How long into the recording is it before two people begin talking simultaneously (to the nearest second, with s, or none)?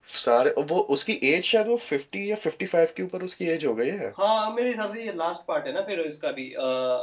none